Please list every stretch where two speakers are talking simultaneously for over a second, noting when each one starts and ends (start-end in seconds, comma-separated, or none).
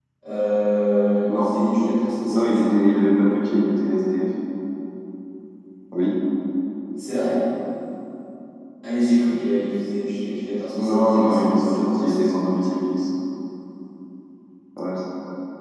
10.8-12.2